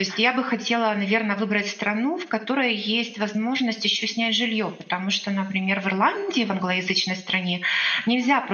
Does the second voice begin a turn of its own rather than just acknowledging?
No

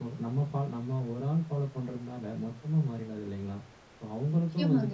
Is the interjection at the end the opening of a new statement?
No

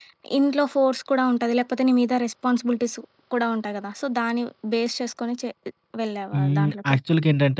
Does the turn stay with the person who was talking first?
No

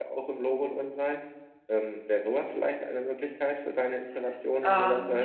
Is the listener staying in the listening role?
No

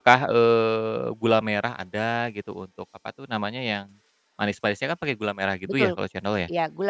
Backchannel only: No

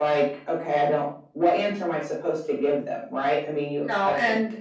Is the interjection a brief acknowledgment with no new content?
No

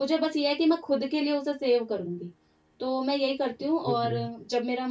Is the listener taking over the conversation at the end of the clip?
No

